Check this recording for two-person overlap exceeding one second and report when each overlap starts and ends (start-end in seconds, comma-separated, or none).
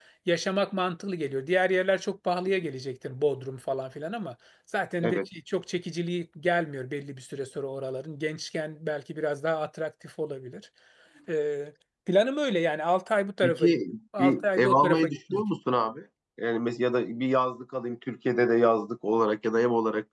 14.2-15.4